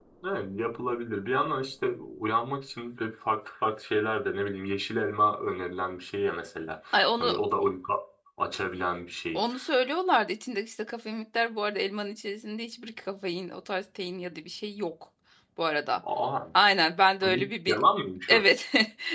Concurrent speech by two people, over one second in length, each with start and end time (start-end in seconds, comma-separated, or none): none